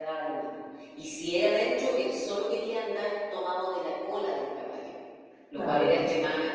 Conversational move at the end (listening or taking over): listening